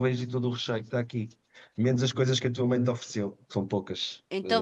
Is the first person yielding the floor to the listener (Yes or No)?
Yes